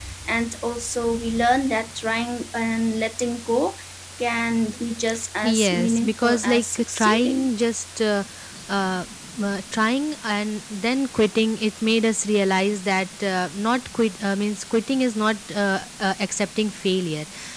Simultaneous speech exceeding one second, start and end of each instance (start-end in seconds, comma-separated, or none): 5.4-7.5